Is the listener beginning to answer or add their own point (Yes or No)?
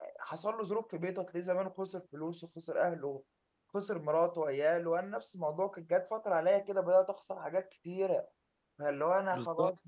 No